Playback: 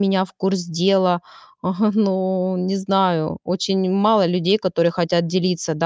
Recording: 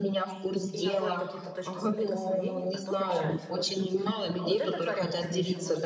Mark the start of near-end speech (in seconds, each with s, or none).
0.7 s